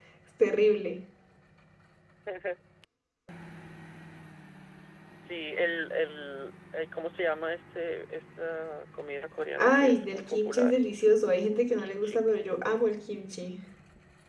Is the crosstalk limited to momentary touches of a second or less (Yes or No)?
No